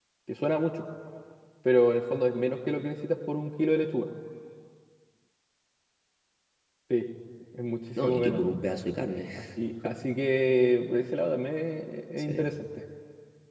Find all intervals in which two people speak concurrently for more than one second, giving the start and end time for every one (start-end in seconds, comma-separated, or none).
none